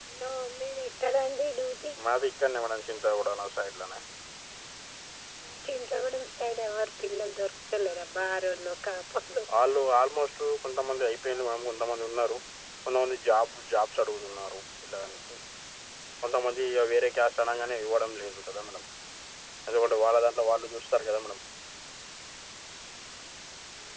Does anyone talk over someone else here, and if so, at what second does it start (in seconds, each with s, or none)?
none